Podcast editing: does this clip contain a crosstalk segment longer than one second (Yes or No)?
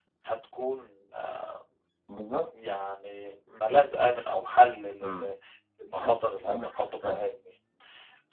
Yes